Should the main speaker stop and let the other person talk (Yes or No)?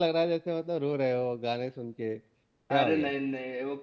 Yes